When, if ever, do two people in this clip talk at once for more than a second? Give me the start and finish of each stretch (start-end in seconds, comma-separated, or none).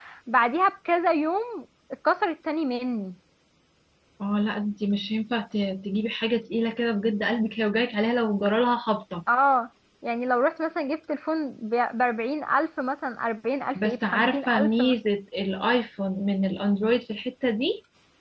13.8-15.0